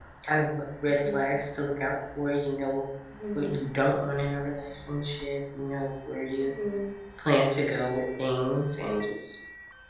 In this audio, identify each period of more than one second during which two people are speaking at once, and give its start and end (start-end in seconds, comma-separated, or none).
none